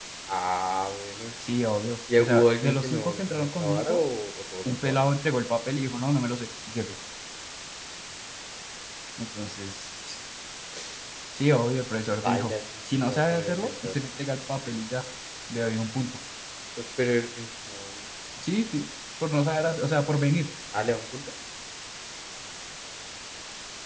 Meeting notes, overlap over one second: present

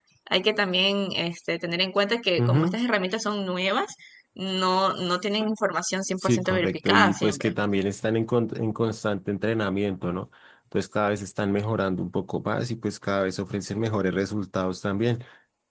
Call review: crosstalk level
present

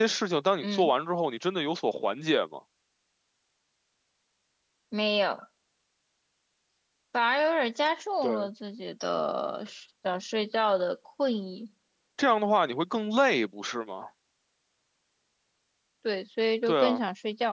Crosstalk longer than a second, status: none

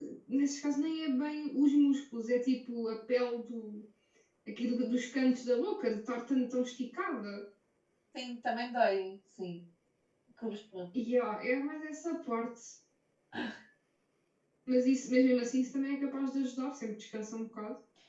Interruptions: none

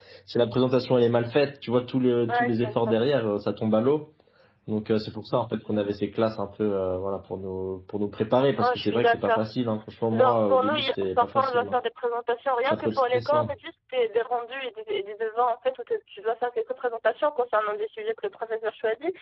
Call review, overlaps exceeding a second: present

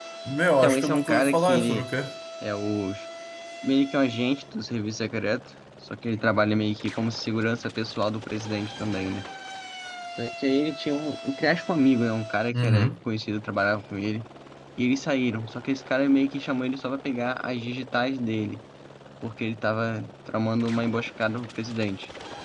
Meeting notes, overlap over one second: present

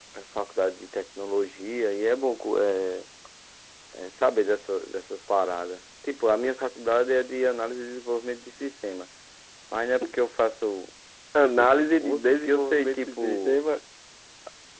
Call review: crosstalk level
present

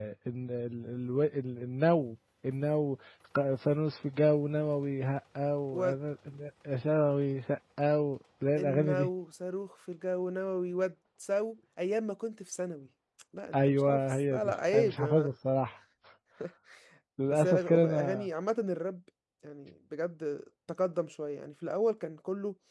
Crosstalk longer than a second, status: present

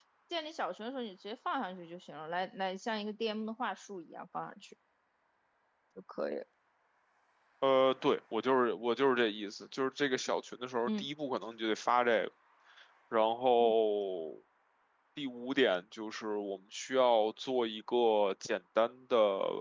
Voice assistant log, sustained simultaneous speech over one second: none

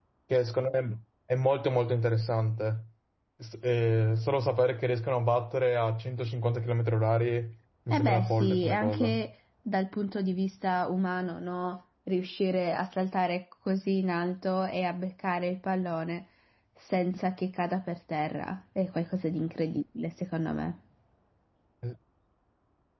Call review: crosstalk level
present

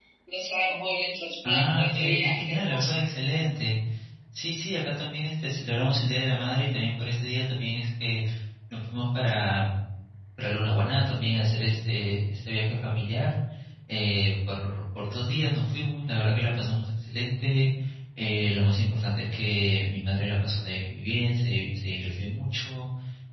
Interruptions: present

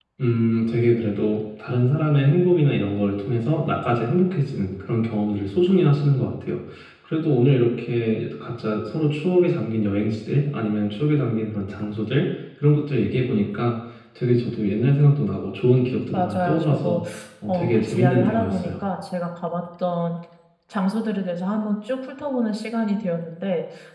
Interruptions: present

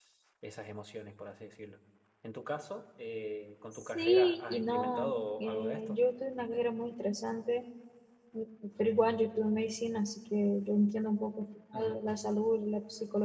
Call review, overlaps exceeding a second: present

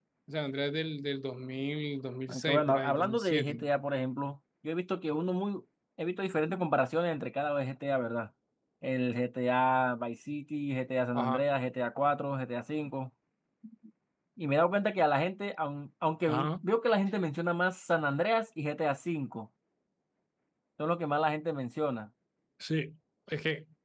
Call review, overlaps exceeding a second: present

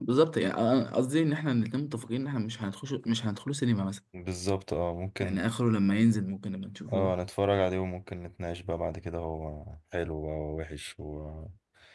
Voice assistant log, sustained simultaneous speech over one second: none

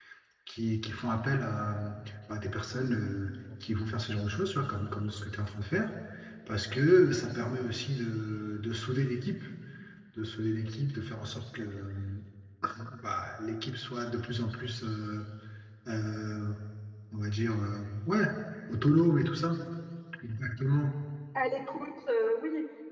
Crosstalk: none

